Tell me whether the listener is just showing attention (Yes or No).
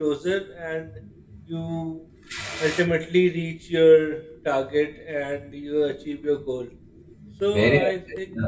No